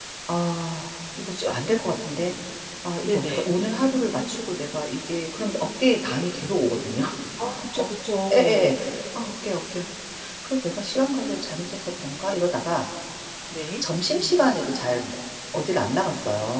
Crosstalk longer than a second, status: none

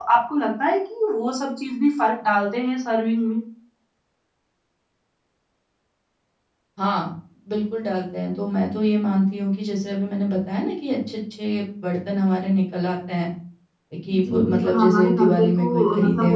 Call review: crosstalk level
present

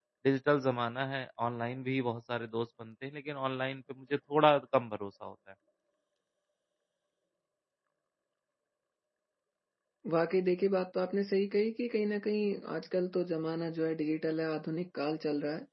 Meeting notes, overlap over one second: none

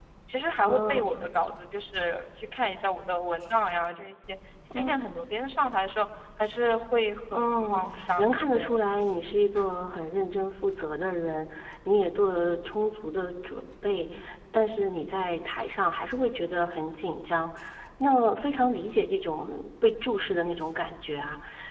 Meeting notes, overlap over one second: present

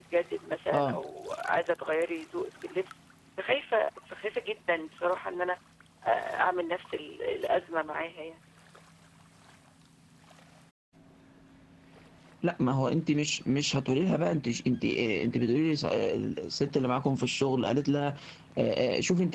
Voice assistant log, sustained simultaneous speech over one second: none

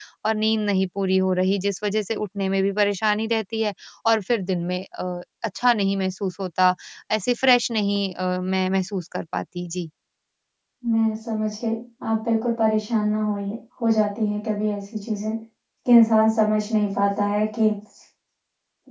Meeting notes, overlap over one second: none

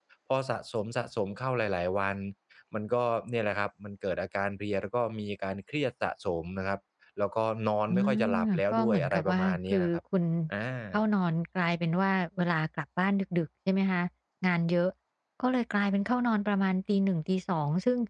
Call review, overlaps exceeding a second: present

